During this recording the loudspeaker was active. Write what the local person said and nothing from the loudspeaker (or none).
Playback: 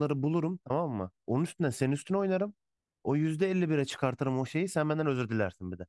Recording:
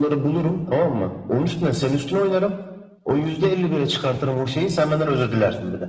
none